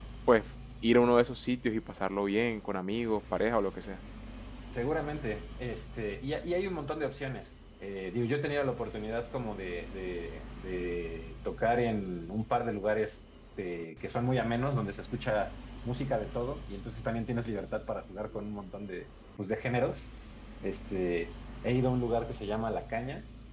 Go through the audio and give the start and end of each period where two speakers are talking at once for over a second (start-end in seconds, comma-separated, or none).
none